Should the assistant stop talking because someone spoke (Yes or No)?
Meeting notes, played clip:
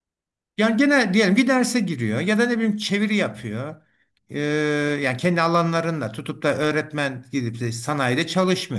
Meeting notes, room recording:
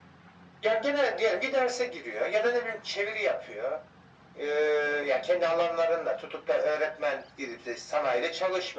No